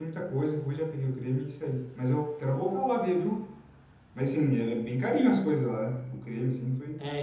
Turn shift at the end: Yes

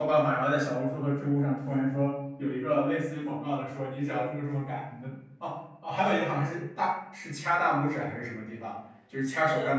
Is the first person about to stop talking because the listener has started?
No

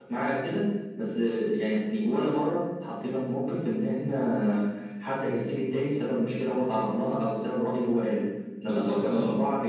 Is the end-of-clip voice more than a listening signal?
No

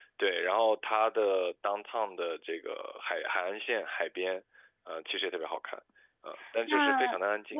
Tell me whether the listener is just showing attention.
No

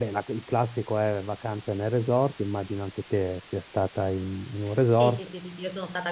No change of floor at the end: No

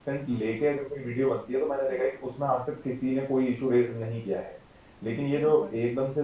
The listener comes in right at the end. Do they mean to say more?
No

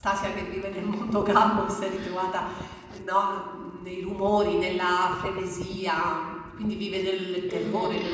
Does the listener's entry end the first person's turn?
Yes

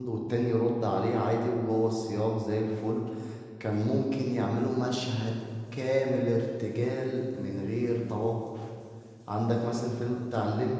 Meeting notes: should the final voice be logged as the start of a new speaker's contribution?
No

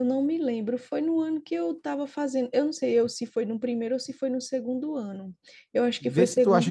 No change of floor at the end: No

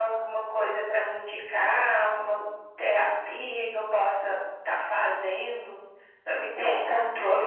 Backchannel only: Yes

